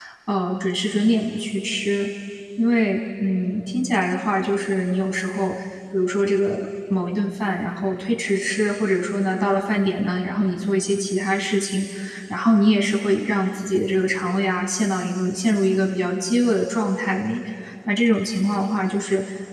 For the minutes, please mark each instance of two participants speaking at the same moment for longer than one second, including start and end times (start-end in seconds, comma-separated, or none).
none